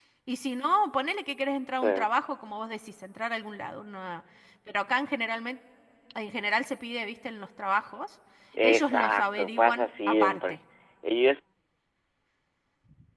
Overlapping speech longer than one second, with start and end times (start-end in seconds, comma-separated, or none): 8.6-10.6